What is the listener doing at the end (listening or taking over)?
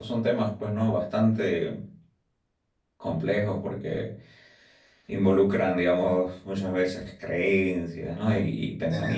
listening